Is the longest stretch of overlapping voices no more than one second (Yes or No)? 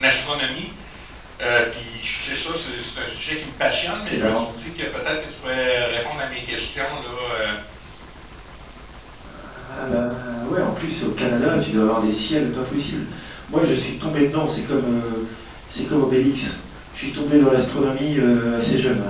Yes